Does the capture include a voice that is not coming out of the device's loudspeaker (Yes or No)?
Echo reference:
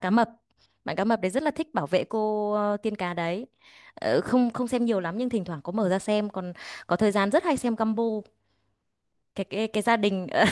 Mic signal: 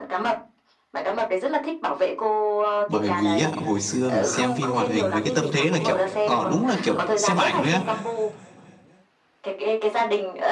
Yes